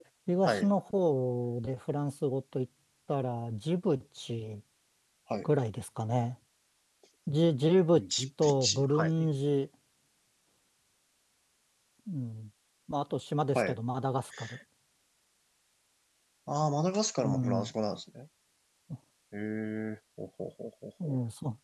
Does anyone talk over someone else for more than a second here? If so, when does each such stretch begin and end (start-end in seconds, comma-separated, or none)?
8.0-9.3